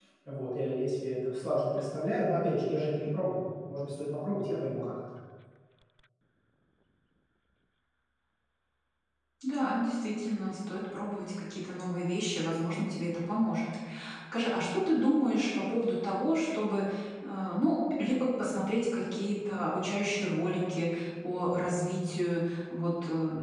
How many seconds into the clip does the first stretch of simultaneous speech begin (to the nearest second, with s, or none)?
none